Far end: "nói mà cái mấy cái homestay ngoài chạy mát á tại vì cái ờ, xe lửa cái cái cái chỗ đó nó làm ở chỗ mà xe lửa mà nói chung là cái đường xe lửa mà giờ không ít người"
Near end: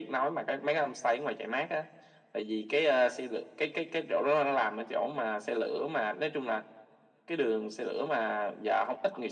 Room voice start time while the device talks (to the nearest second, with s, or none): none